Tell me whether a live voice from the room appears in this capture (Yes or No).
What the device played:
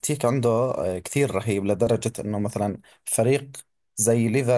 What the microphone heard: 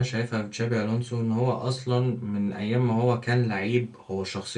Yes